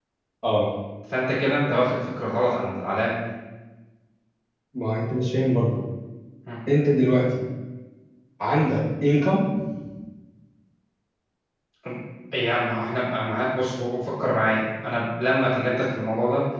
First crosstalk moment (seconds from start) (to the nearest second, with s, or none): none